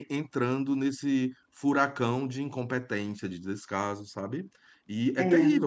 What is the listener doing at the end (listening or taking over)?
listening